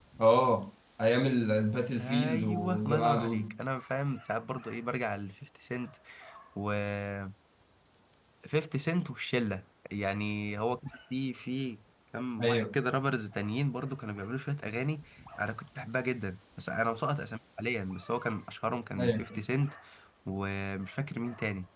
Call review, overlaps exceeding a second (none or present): present